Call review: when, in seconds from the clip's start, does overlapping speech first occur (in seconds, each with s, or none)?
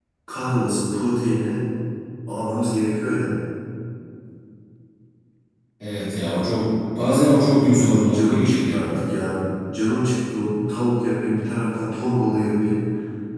7.5 s